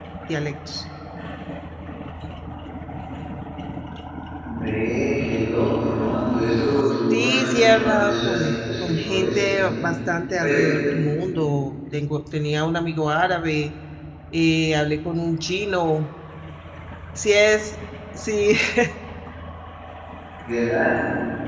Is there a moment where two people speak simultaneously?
Yes, from 7.1 s

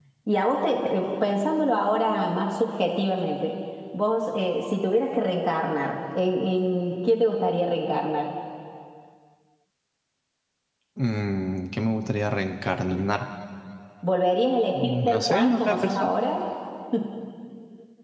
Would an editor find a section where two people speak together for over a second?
Yes, from 14.8 s

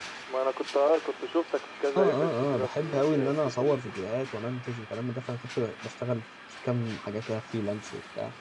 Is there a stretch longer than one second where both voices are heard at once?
Yes, from 2.0 s

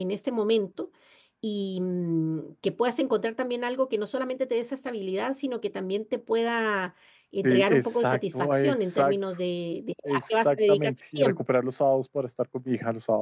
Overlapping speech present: Yes, from 7.4 s

